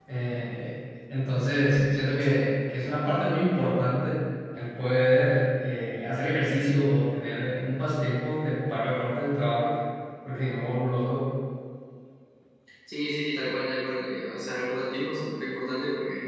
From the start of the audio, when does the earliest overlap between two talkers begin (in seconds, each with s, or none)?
none